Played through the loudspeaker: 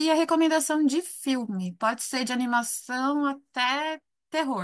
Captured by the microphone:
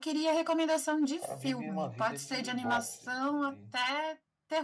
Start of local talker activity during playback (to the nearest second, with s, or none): 1 s